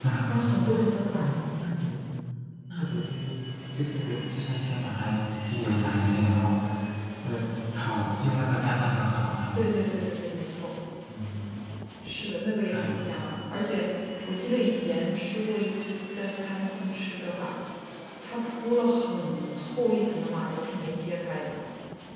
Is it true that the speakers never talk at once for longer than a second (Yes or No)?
Yes